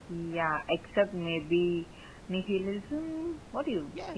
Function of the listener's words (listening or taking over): taking over